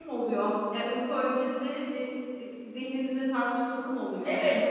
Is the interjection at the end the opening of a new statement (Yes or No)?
Yes